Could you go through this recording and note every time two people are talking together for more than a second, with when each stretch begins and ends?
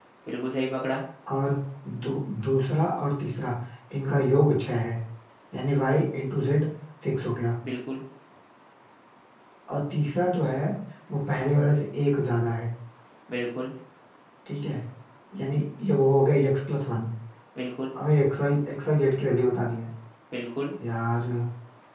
none

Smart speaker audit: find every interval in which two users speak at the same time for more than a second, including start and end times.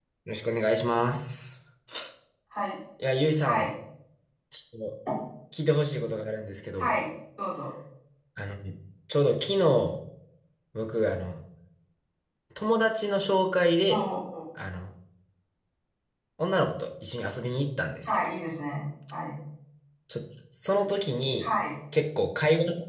none

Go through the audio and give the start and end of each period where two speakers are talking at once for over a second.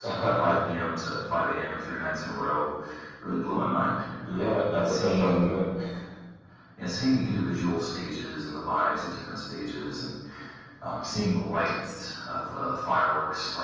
4.2-5.5

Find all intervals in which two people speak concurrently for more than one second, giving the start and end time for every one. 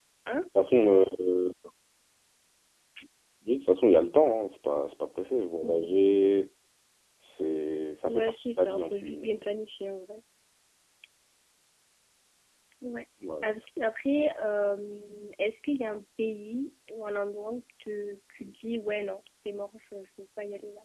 8.0-9.3

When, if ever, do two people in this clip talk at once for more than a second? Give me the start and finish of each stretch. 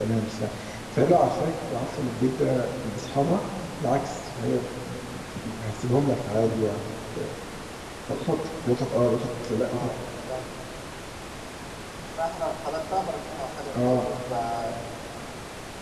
none

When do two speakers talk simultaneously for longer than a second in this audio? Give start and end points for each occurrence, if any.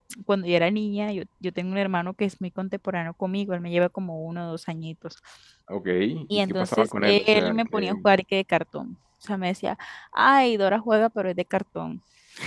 6.3-8.0

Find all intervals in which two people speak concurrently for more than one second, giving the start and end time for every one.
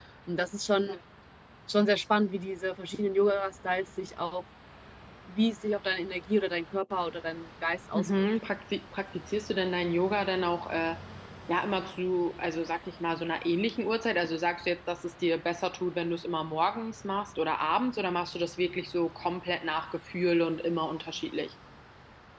none

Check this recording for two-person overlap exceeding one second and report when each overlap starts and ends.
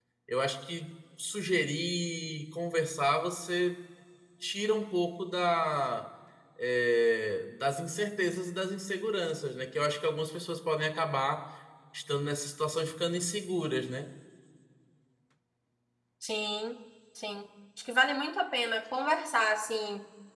none

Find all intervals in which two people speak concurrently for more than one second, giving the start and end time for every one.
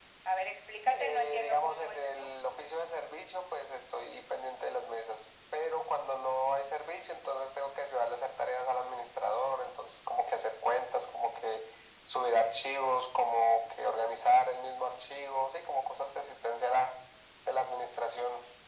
0.9-2.3

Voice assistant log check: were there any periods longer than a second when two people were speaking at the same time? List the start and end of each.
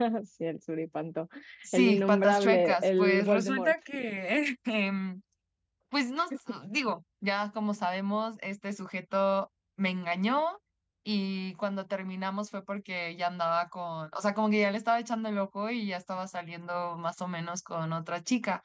1.7-3.7

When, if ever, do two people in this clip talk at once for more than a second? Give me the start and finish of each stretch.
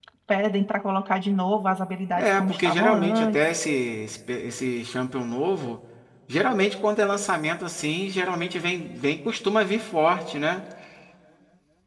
2.2-3.4

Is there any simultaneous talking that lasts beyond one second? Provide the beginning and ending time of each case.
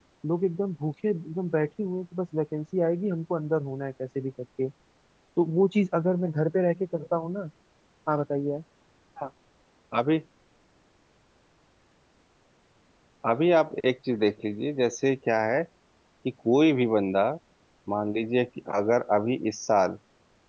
none

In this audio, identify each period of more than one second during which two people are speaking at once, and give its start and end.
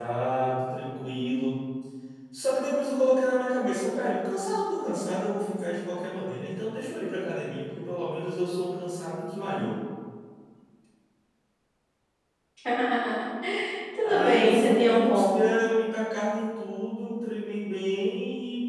14.0-15.4

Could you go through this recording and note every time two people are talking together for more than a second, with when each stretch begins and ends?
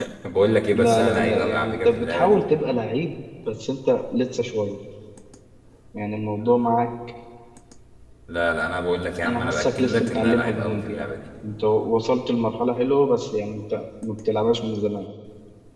0.7-2.4, 9.2-11.1

